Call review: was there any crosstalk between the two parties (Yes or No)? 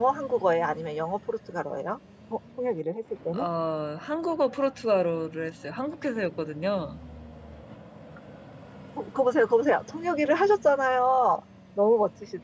No